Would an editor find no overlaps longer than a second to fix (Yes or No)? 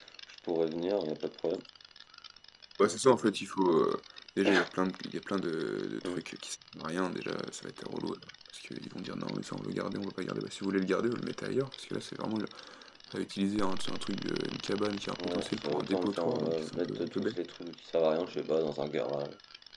No